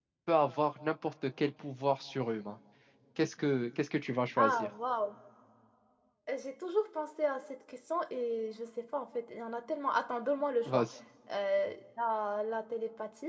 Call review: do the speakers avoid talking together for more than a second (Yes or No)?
Yes